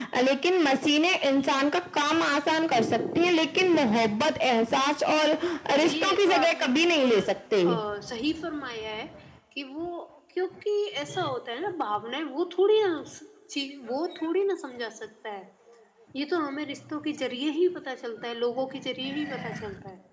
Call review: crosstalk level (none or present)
present